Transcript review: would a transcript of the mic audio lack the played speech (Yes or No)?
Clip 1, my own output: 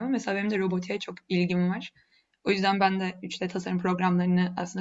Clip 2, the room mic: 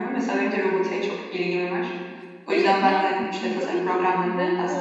No